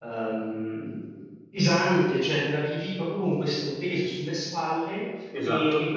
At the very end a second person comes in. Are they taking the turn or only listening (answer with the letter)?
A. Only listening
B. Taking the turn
A